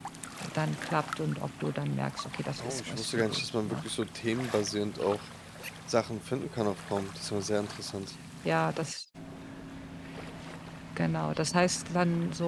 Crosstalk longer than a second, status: present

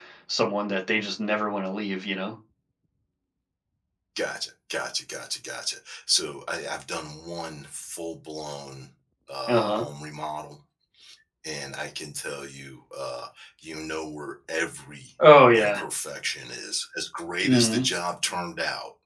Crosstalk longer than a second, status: none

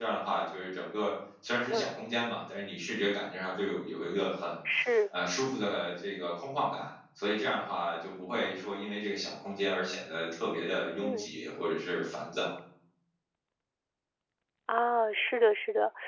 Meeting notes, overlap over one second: none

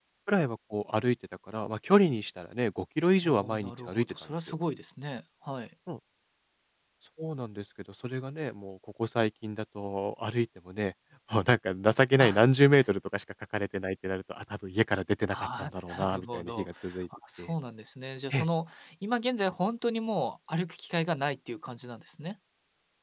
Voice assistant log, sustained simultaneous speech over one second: present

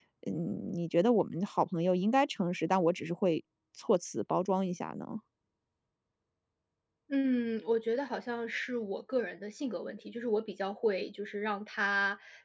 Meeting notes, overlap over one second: none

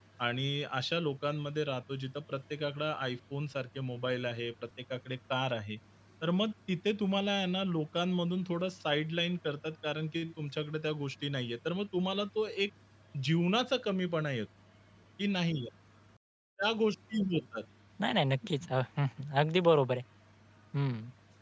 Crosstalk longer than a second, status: none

